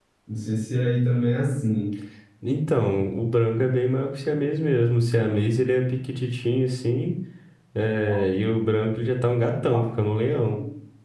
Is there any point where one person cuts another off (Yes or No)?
No